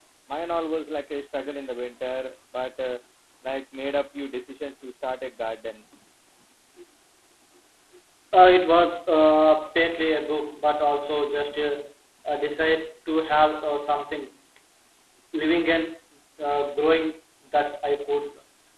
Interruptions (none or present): none